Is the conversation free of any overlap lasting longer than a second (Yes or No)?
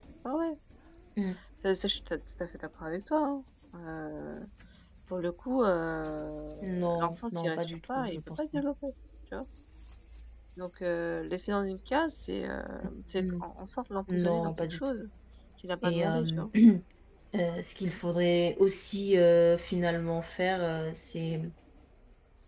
No